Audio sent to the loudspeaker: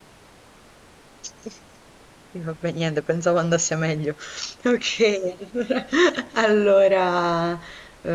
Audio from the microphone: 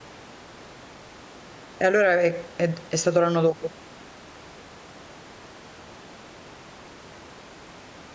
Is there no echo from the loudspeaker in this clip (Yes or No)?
Yes